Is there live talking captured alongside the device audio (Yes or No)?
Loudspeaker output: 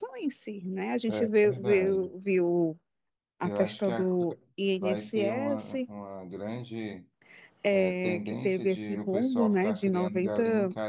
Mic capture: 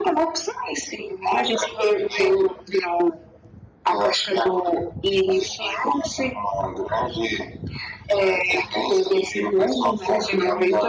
No